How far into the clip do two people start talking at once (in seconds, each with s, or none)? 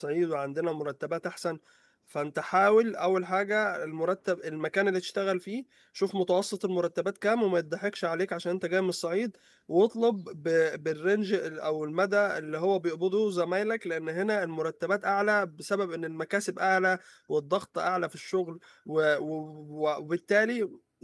none